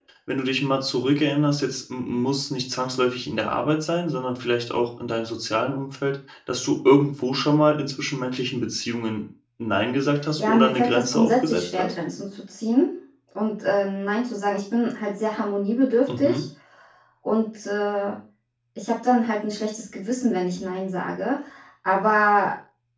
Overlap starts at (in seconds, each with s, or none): 10.4 s